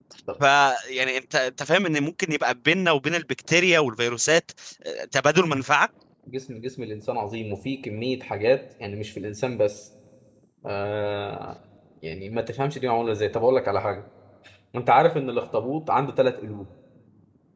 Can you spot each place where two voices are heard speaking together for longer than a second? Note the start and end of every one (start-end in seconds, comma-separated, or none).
none